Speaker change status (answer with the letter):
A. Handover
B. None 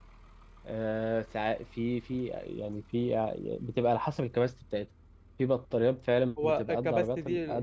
A